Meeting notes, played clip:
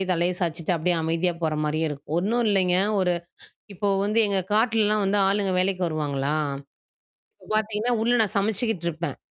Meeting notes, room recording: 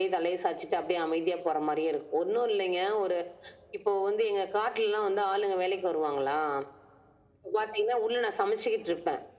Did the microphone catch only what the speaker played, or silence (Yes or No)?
Yes